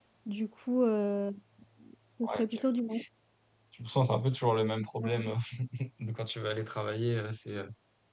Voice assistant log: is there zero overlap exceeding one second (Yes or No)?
Yes